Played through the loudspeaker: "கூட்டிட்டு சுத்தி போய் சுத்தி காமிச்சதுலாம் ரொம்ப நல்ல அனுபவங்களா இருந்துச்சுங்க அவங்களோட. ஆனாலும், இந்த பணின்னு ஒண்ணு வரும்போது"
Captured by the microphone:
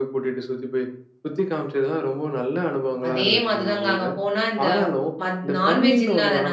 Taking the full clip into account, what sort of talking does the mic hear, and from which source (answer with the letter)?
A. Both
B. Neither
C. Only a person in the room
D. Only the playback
A